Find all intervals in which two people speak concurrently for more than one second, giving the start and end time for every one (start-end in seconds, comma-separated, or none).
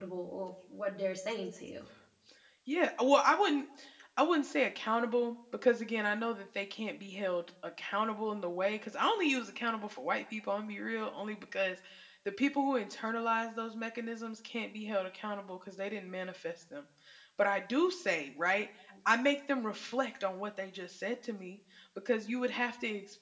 none